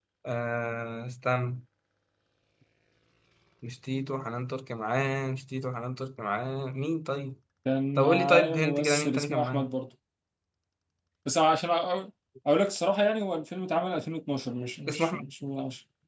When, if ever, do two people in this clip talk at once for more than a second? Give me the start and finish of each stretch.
8.0-9.7

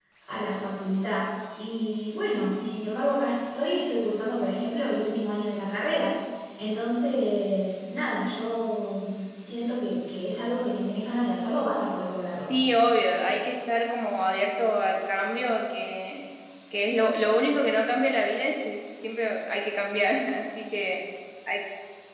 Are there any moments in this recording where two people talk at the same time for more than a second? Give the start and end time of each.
none

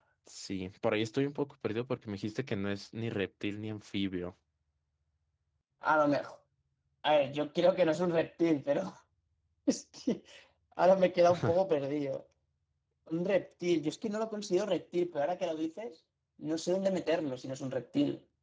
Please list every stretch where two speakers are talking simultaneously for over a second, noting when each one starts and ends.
none

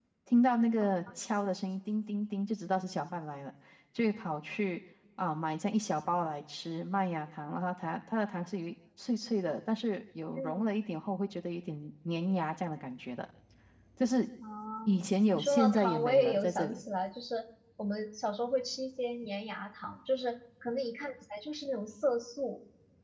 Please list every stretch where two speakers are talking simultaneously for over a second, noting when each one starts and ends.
15.3-16.8

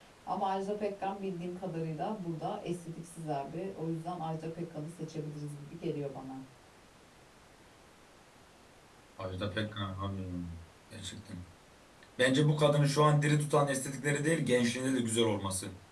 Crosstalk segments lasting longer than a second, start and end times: none

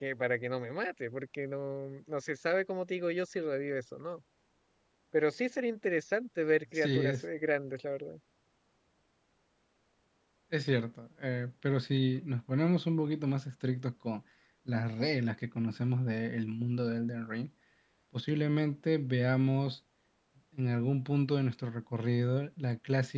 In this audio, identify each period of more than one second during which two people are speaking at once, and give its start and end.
none

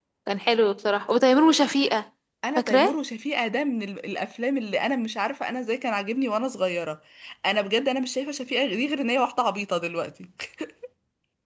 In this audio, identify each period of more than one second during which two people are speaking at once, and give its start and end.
none

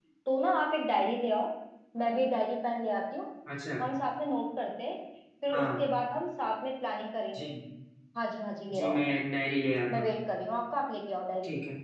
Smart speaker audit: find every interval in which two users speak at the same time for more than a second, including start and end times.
none

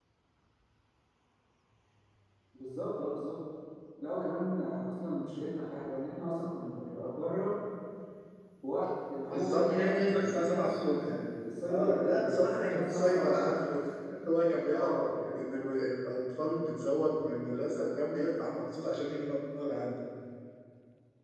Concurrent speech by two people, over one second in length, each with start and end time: 9.3-11.2, 11.7-13.4

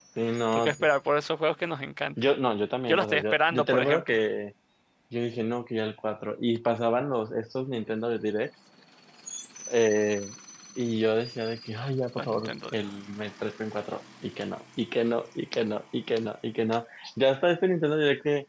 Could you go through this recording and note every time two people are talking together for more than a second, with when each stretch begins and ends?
2.9-4.2

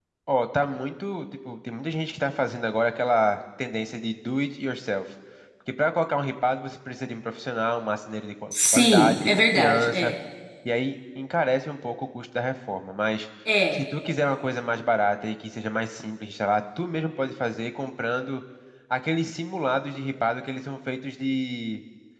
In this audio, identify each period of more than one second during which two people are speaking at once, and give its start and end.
8.7-10.1

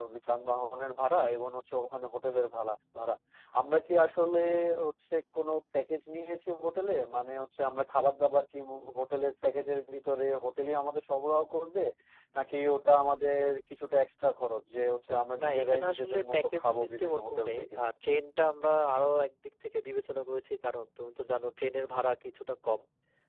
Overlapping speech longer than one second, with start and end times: 15.4-17.7

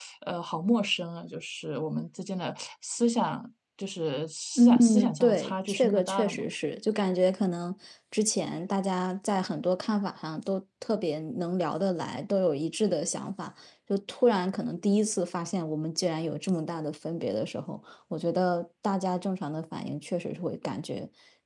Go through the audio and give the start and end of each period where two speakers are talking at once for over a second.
4.6-6.5

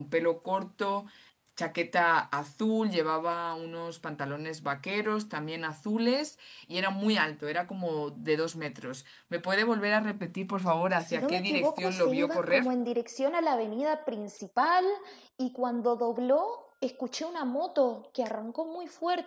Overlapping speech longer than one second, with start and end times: 11.0-12.7

